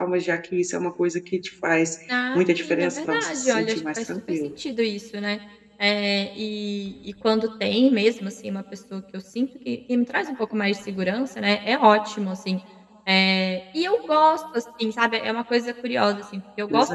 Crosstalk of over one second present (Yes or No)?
Yes